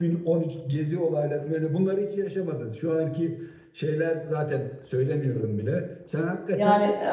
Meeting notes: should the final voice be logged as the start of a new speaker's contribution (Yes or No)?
No